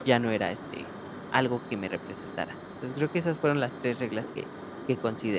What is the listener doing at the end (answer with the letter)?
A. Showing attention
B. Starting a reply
B